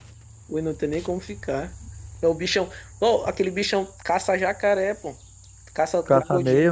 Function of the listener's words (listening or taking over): listening